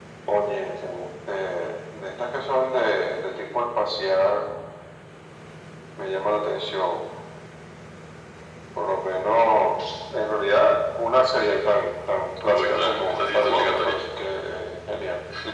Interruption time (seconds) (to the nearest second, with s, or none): 12 s